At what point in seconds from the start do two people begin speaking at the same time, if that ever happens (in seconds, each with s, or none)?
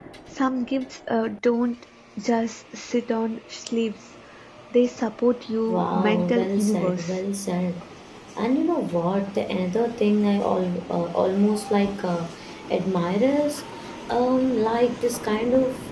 5.7 s